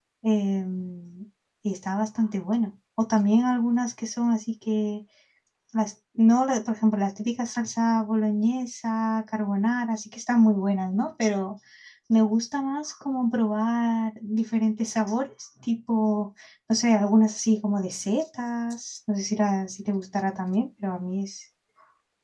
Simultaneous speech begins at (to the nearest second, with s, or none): none